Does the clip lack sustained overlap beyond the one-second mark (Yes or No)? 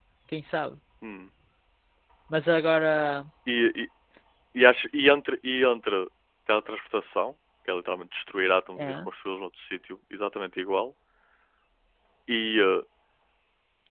Yes